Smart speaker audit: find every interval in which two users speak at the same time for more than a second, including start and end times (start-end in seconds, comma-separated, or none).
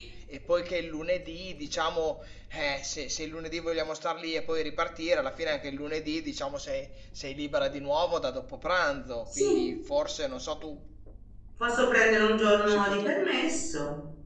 none